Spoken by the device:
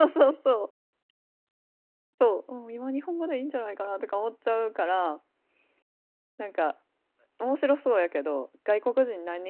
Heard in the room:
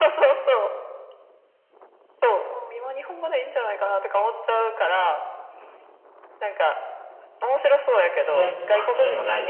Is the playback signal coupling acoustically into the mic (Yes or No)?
Yes